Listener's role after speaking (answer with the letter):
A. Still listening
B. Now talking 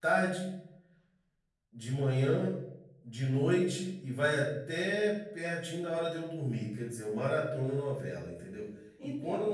A